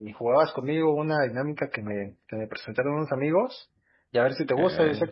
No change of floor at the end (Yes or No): Yes